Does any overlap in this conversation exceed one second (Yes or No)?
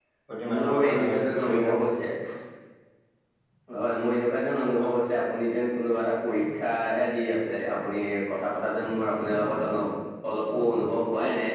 Yes